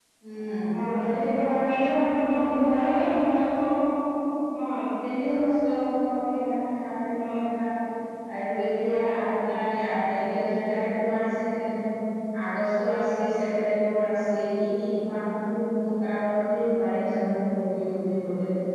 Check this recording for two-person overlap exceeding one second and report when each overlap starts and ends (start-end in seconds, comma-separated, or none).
1.4-3.4